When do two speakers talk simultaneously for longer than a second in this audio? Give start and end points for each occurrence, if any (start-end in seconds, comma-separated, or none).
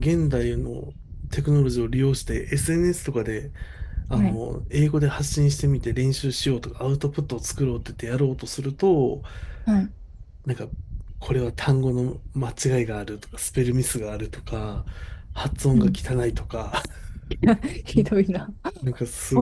none